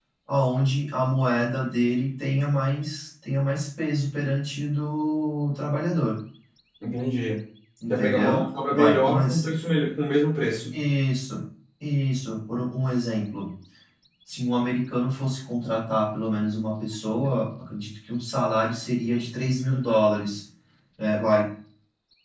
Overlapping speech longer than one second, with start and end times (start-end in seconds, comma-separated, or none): 7.9-9.4